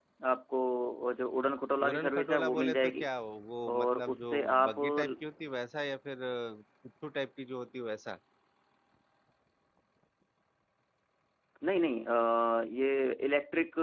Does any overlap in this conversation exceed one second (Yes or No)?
Yes